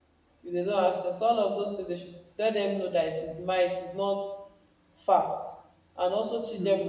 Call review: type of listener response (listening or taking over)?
listening